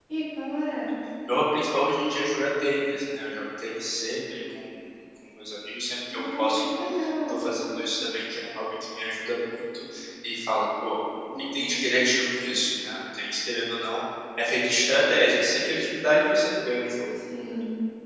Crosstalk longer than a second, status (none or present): none